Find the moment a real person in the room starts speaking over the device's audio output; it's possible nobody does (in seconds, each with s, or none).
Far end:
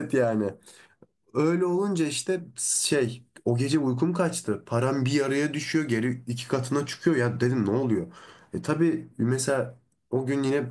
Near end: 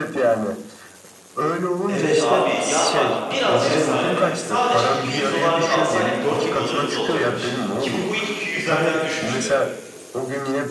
1.9 s